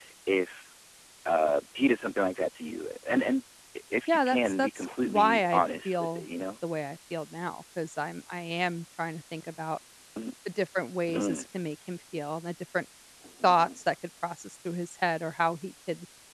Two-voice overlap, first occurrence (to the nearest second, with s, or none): 4 s